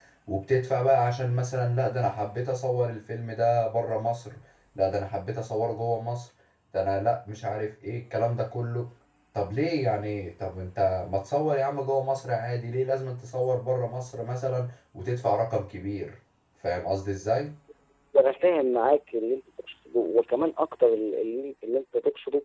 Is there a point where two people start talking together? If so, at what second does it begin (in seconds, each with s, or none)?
none